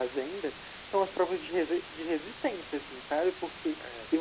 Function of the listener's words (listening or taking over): listening